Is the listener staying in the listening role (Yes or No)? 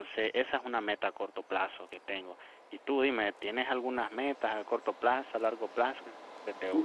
No